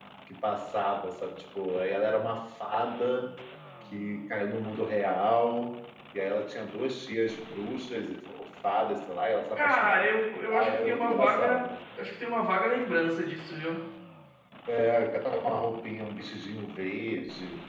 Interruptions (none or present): present